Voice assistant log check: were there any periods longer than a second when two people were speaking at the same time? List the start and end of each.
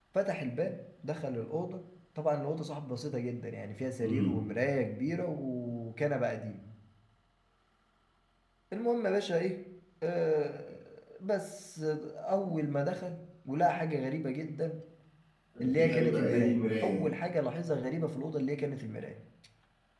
15.7-17.0

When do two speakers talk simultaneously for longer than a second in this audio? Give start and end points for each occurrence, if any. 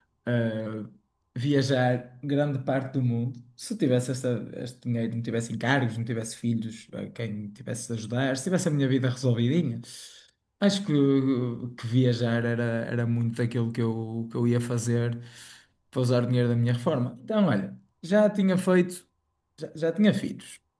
none

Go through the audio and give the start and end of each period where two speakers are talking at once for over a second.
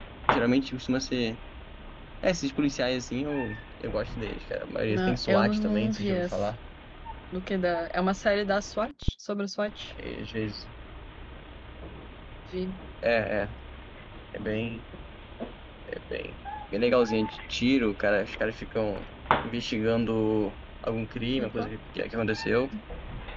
4.9-6.4

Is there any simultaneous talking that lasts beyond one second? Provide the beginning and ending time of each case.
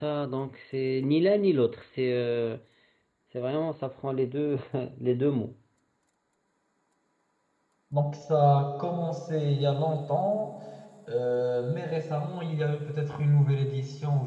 none

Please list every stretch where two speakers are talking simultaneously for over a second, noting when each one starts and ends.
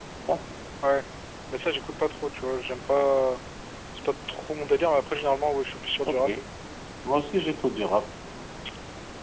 none

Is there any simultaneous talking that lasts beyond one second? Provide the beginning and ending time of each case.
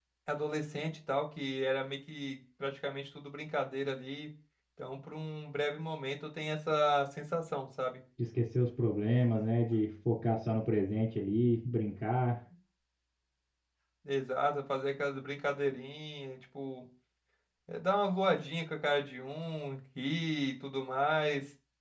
none

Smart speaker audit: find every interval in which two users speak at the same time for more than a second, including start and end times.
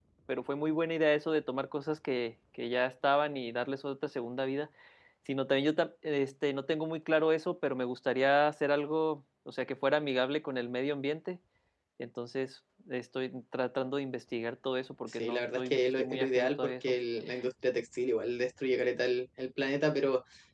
15.2-17.0

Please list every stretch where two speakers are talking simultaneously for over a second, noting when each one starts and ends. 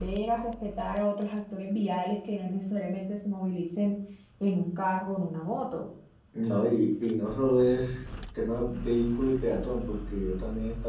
none

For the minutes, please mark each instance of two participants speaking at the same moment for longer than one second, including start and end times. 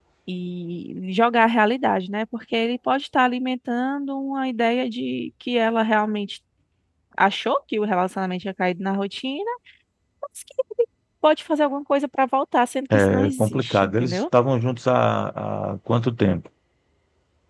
12.9-14.2

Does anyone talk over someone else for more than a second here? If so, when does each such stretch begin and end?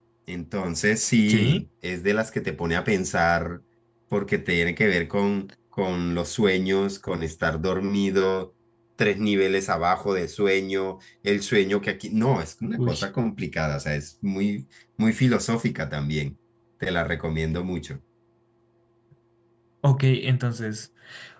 none

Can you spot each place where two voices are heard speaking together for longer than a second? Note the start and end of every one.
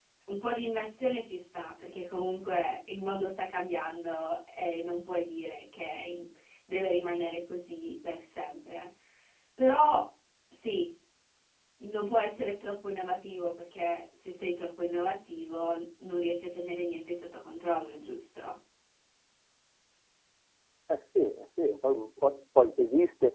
none

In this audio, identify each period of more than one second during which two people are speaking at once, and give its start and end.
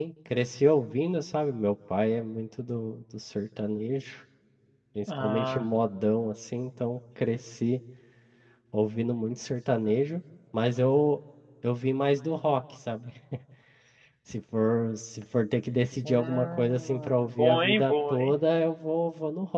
16.0-18.3

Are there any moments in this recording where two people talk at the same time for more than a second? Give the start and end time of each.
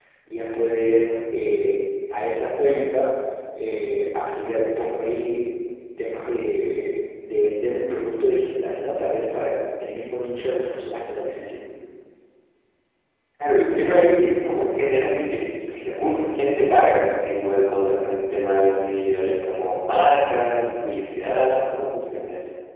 none

